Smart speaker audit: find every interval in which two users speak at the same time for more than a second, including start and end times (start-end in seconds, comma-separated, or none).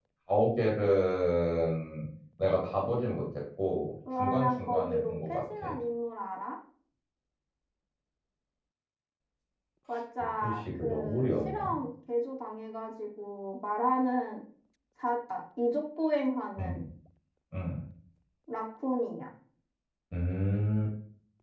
4.2-5.7, 10.4-11.8